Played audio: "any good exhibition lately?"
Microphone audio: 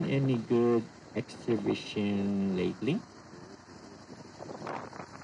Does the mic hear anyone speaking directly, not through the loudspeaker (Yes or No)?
No